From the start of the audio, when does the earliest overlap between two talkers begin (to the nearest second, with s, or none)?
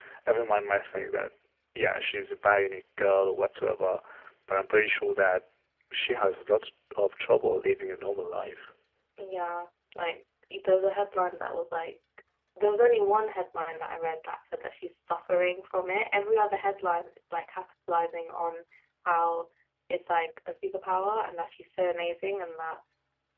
none